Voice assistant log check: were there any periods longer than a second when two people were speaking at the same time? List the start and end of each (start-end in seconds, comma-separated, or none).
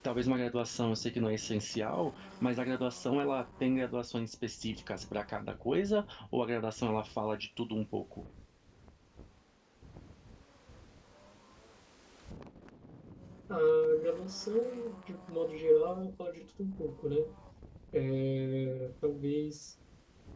none